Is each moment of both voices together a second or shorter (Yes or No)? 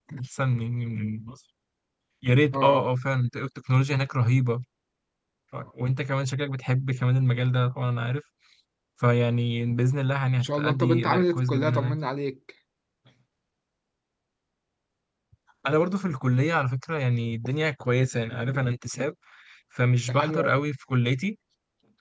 No